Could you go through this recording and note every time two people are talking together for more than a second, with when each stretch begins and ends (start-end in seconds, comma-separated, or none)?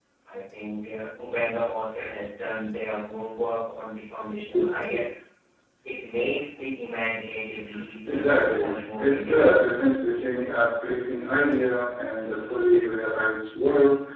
8.1-9.7